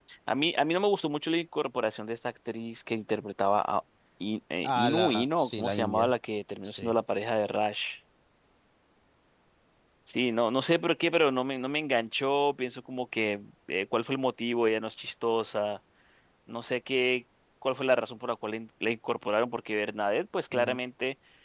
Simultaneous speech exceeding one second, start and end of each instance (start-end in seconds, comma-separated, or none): 4.6-6.1